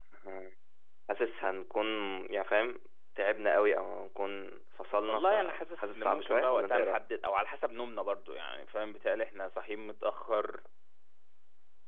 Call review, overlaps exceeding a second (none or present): present